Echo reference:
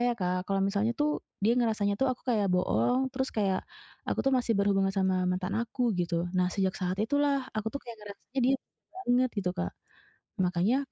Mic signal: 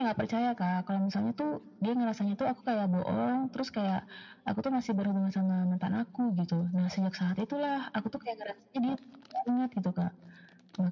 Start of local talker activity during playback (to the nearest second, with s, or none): none